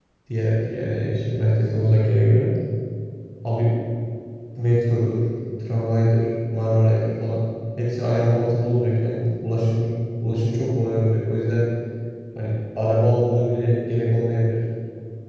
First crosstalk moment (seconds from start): none

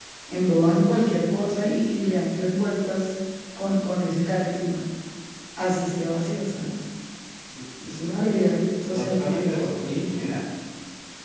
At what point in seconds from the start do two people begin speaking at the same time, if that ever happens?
8.9 s

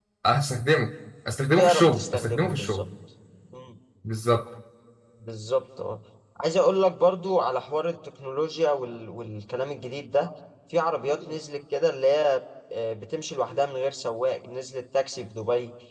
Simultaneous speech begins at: 1.6 s

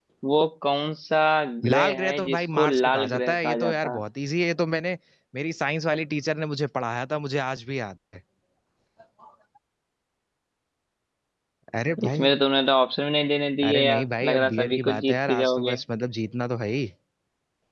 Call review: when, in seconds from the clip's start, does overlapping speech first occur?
1.7 s

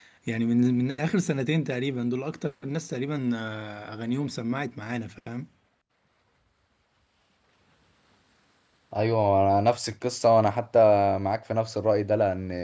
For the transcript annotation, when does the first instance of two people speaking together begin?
none

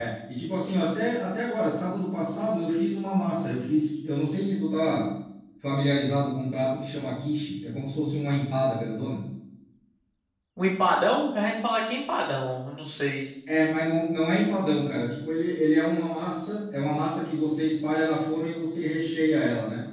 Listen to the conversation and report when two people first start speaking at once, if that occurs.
none

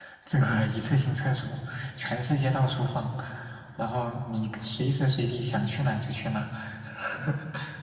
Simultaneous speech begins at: none

